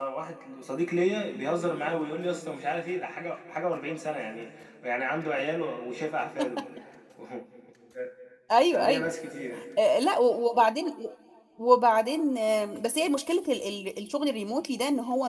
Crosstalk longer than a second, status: none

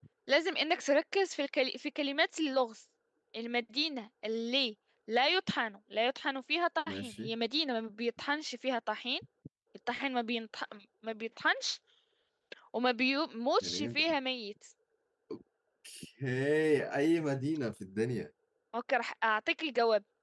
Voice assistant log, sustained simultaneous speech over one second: none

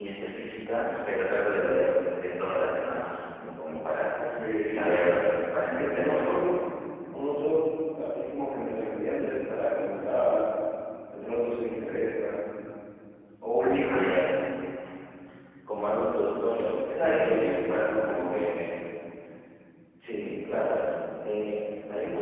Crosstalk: present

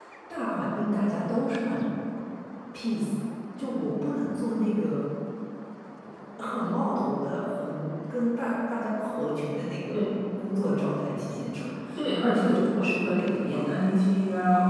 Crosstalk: present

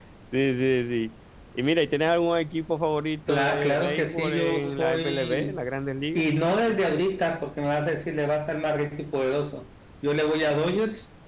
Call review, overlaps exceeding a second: present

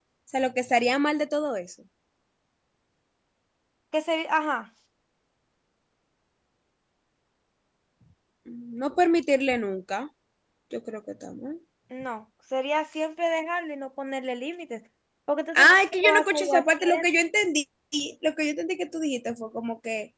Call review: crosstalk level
present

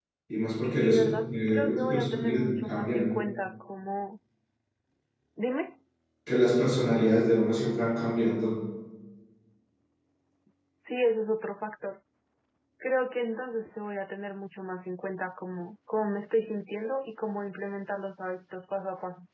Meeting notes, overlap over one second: present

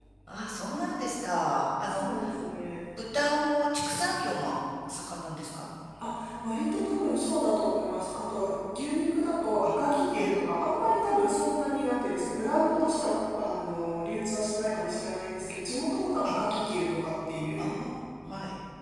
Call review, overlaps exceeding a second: none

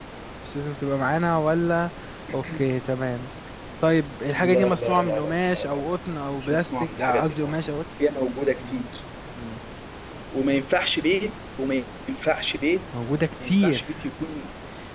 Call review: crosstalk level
present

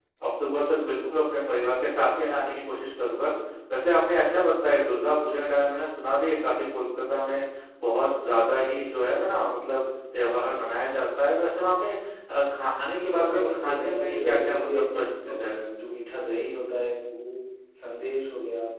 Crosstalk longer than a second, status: present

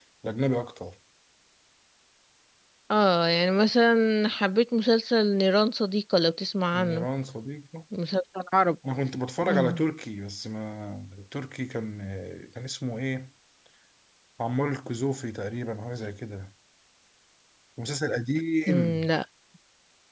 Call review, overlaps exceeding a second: none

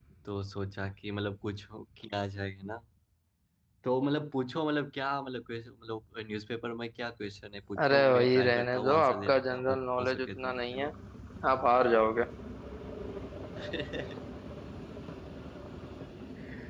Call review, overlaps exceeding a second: present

